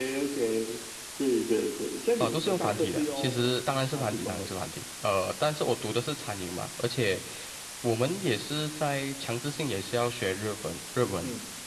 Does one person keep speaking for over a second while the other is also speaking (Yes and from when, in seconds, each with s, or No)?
Yes, from 2.2 s